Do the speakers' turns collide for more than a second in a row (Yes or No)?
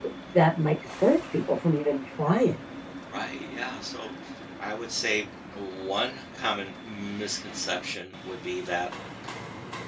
No